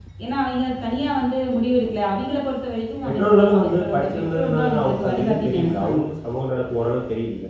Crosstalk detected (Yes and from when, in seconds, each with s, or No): Yes, from 3.0 s